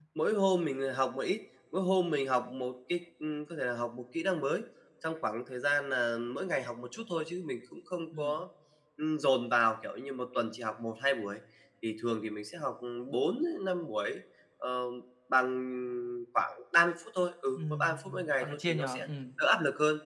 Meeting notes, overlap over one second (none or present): present